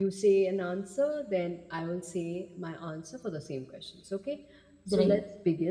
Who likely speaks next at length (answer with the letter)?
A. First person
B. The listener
A